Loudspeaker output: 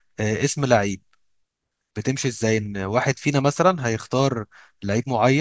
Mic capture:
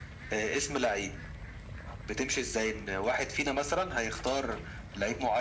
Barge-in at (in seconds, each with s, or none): none